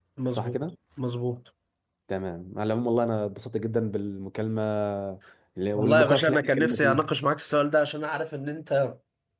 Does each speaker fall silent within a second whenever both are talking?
No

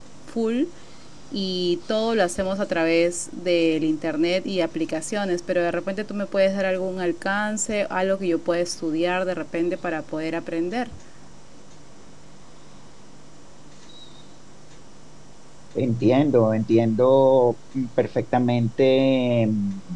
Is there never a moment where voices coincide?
Yes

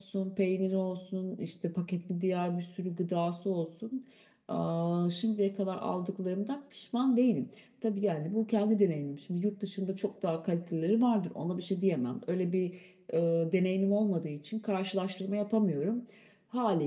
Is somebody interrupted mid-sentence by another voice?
No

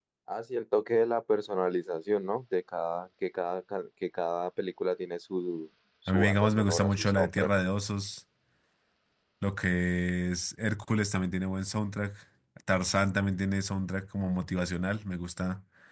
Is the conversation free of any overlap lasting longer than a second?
No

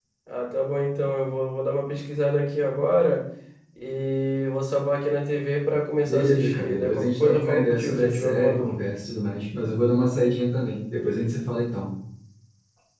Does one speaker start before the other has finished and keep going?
Yes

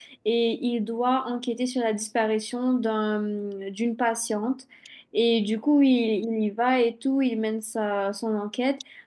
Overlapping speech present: No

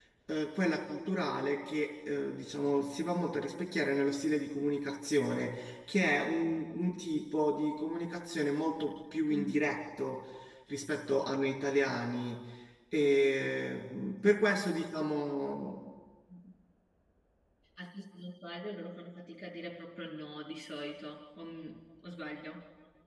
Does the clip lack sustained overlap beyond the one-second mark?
Yes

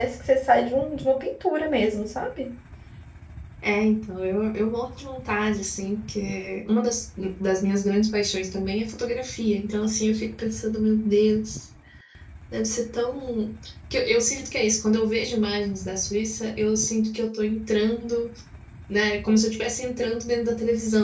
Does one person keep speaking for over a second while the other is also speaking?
No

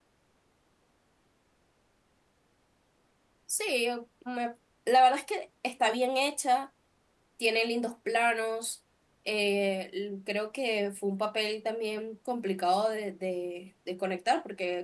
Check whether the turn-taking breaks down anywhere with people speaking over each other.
No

